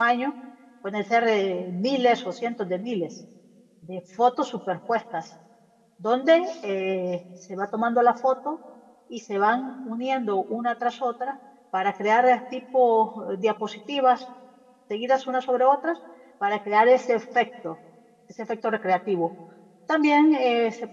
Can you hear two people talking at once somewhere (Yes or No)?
No